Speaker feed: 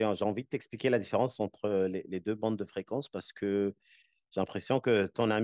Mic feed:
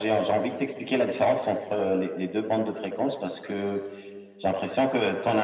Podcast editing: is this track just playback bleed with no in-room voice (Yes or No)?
Yes